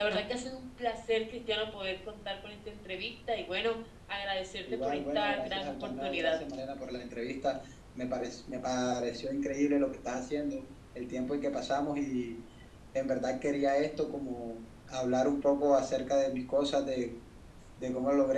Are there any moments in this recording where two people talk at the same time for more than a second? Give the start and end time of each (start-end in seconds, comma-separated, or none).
4.7-6.3